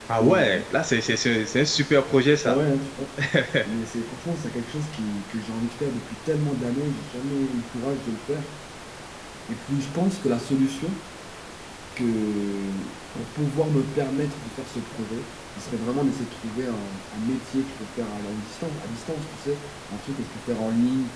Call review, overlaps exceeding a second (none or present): none